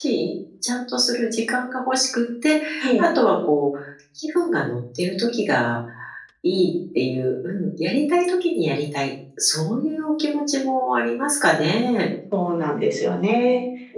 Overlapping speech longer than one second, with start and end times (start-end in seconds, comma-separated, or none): none